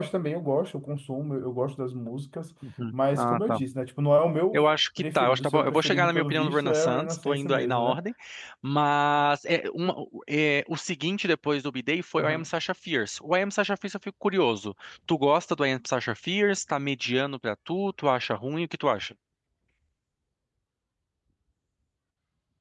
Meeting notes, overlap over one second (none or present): present